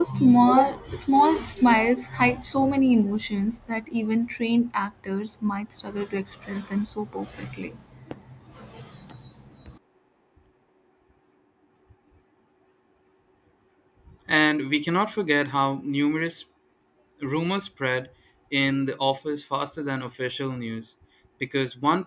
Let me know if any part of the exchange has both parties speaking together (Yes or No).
No